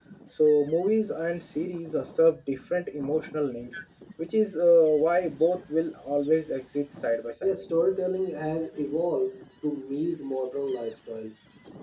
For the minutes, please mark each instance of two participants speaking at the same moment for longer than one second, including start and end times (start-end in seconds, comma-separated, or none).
none